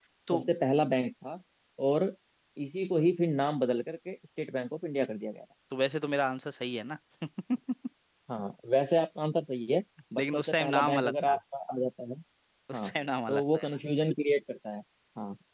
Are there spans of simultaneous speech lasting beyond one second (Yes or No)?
Yes